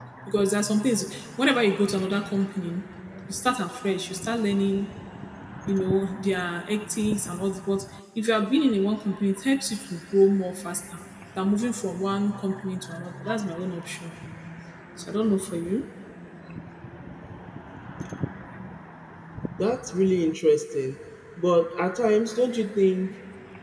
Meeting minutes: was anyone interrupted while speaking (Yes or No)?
No